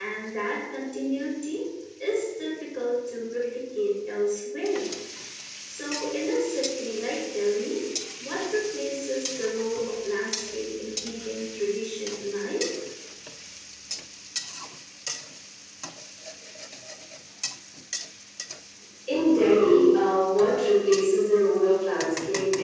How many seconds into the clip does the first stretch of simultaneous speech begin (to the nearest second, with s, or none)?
none